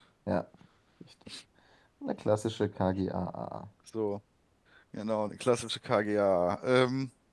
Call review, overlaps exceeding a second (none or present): none